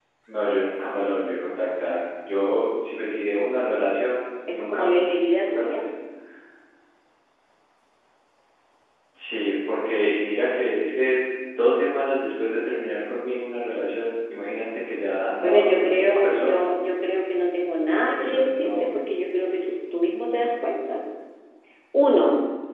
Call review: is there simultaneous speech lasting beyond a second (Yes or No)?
Yes